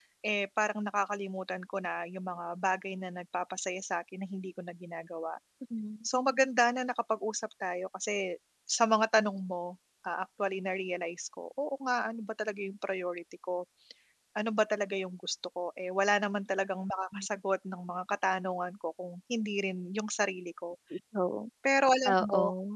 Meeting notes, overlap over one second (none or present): none